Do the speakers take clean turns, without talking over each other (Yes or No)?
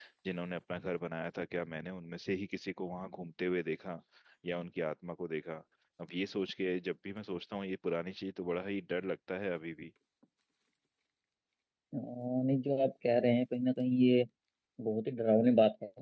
Yes